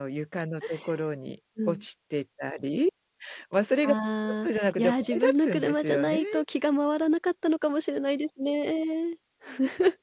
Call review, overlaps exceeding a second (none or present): present